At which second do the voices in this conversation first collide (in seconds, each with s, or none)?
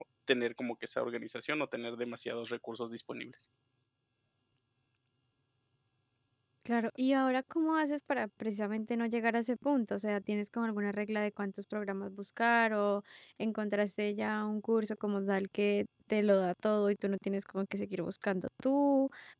none